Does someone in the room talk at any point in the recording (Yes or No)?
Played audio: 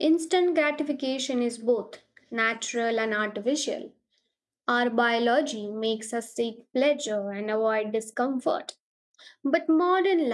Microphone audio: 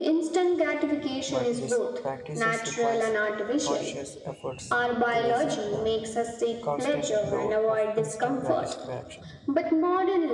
Yes